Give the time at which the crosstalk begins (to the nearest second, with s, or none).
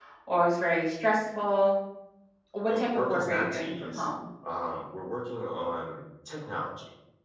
3 s